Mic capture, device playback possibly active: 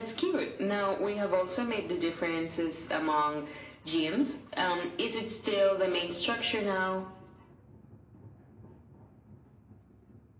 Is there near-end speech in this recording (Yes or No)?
No